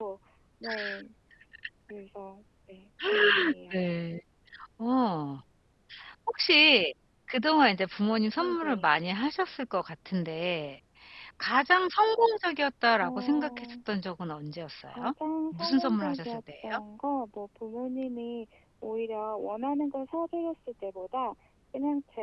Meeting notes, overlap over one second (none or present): present